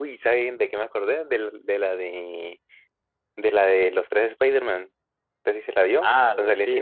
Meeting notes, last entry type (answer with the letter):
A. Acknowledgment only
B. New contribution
B